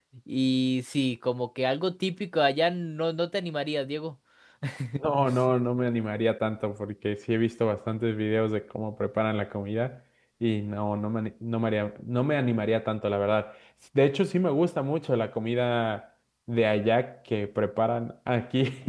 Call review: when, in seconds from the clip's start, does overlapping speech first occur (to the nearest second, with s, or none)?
none